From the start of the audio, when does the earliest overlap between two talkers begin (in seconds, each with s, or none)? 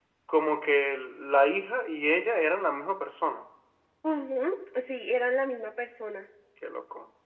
none